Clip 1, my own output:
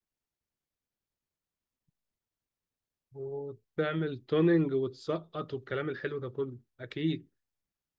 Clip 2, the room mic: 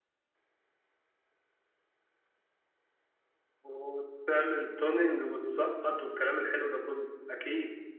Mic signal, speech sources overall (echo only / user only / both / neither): echo only